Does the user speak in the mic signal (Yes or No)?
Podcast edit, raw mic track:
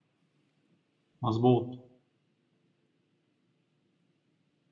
Yes